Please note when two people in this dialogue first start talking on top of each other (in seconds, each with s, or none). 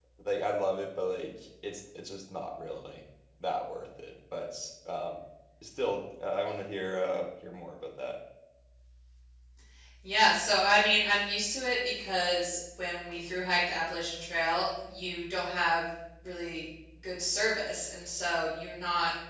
none